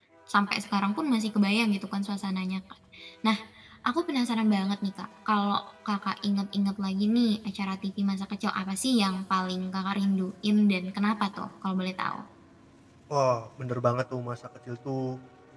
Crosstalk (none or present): none